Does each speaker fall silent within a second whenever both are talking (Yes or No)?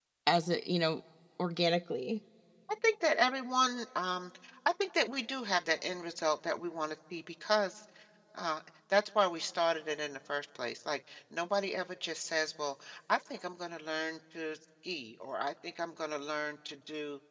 Yes